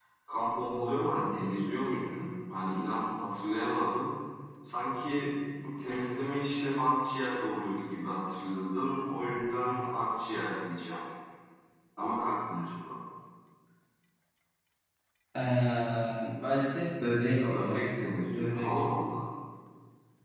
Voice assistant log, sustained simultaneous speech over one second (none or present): present